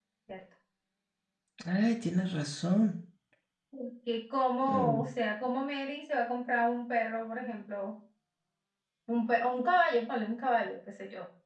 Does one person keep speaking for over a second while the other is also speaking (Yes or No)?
No